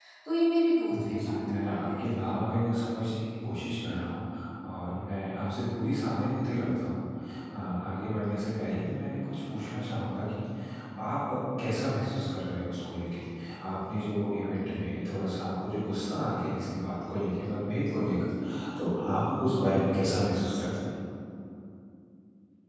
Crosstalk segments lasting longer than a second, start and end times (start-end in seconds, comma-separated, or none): 0.9-2.2